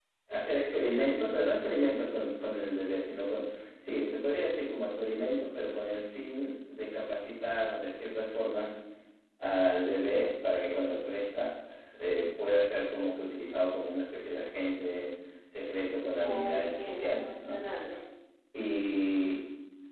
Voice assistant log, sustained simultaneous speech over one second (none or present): present